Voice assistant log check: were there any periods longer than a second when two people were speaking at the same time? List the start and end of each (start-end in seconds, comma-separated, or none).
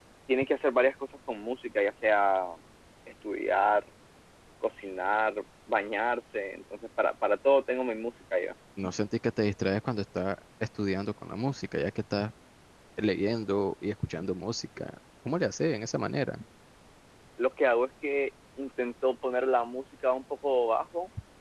none